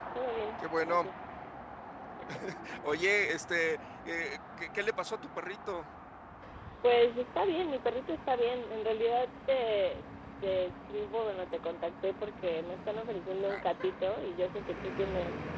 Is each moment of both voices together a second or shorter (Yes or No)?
Yes